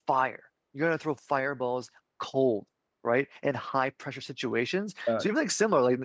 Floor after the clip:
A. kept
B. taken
A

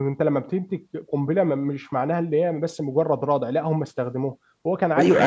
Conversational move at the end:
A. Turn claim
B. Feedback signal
A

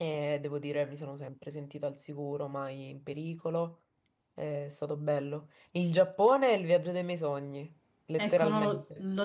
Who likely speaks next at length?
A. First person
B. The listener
B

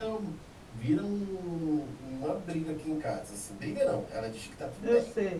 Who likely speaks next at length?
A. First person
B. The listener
A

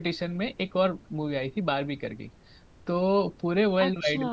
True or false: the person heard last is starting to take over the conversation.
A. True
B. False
B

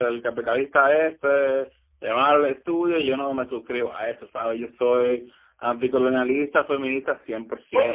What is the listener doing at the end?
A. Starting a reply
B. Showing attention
A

